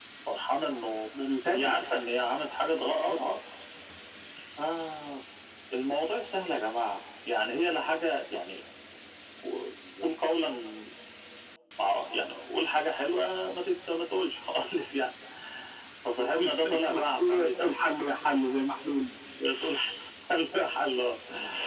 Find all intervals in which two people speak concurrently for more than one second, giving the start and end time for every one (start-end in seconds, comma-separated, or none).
16.2-17.7